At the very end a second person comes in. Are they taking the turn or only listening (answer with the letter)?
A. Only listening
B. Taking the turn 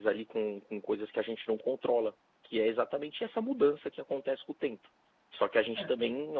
A